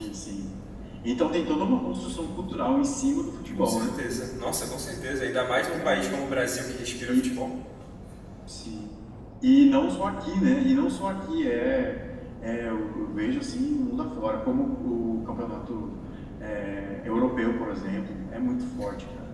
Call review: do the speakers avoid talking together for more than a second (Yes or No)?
Yes